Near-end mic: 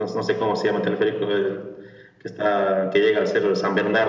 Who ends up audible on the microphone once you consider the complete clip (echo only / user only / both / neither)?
echo only